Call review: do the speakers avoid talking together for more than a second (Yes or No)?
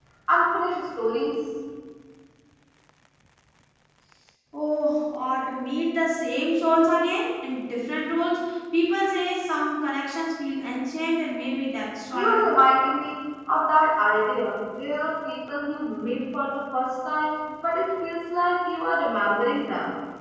Yes